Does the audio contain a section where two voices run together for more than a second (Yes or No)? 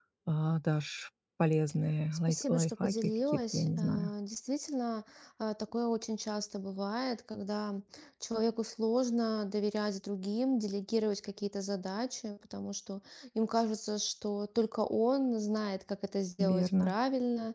Yes